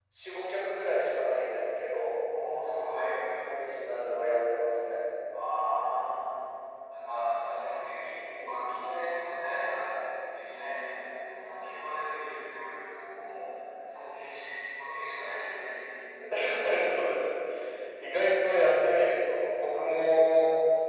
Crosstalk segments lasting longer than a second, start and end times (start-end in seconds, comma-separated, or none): none